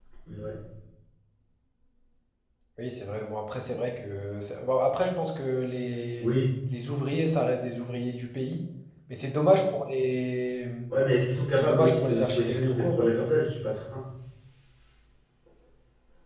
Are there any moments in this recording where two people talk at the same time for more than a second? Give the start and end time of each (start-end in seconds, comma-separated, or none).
11.6-13.1